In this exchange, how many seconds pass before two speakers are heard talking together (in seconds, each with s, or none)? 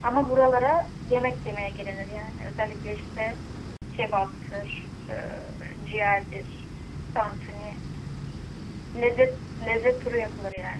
none